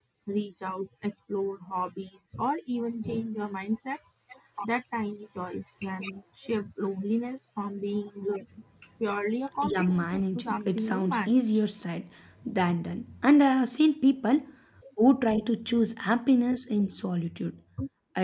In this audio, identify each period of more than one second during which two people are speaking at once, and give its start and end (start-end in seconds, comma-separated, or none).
9.6-11.6